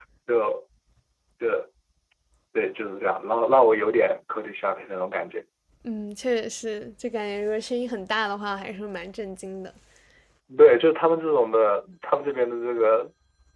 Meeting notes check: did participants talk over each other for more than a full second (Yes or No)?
No